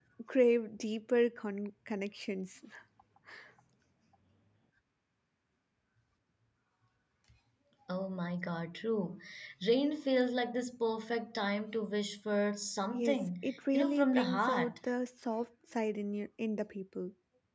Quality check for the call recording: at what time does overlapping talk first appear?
12.9 s

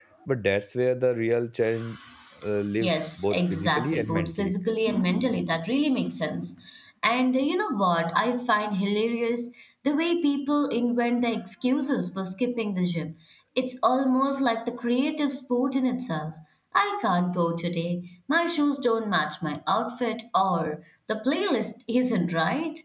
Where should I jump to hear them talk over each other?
2.8 s

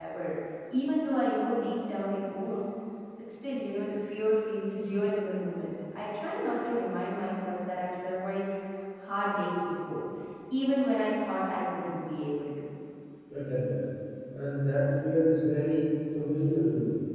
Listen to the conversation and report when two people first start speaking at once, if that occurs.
none

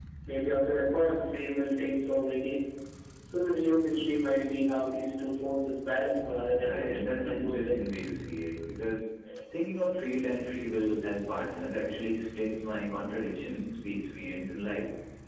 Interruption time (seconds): 6.6 s

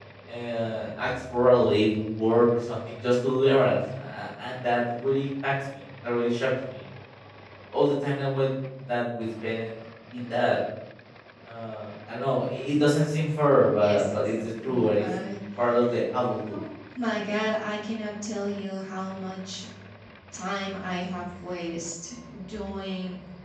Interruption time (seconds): 13.8 s

